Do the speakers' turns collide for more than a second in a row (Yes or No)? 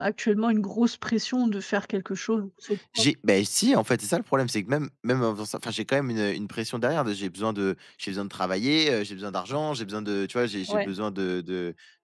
No